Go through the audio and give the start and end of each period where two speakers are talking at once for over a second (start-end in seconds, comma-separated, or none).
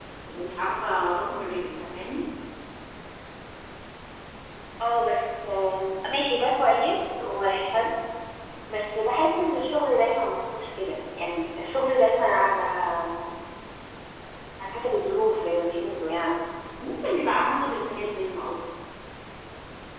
none